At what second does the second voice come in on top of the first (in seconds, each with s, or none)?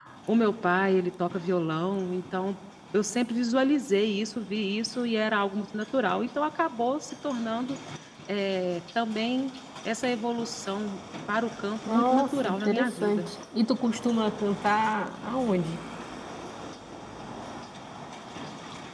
11.9 s